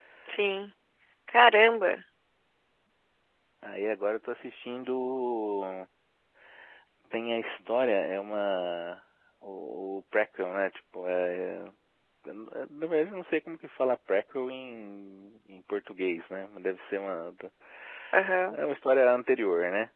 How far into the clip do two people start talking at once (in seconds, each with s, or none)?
none